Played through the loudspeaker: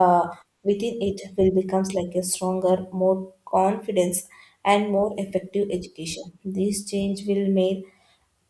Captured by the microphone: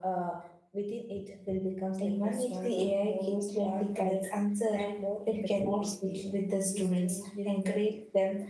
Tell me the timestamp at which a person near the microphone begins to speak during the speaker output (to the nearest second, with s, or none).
2 s